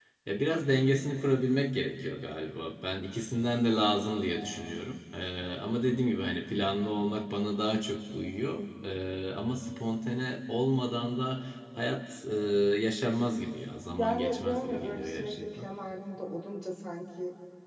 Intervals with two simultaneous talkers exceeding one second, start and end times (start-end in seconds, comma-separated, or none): 14.0-15.7